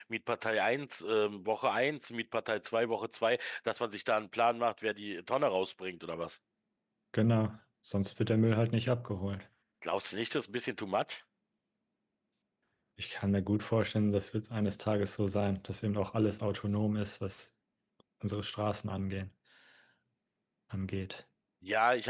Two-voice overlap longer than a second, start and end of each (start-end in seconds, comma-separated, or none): none